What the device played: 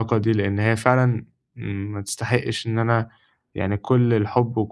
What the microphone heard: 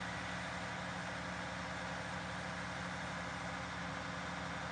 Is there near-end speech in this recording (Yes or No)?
No